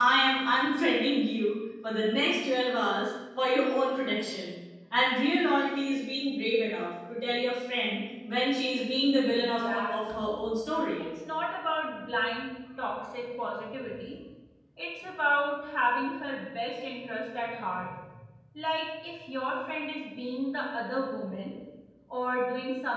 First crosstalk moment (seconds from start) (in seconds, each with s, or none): 9.2 s